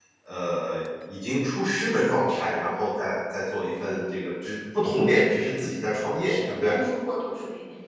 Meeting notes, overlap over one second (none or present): none